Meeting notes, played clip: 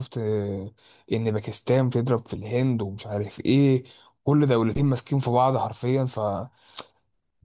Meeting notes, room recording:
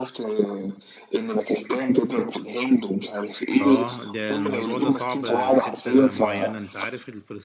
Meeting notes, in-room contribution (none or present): present